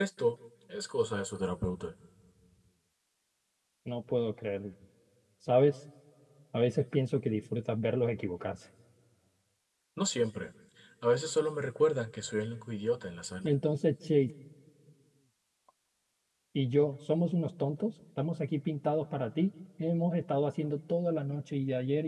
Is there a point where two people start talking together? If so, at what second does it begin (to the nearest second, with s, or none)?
none